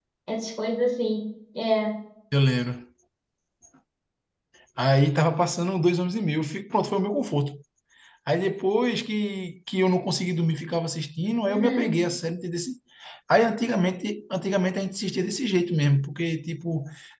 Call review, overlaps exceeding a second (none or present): none